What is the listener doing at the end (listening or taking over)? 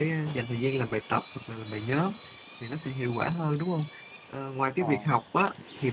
listening